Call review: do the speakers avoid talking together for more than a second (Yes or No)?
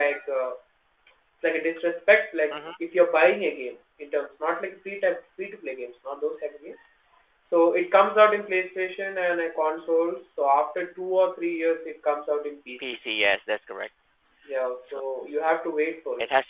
Yes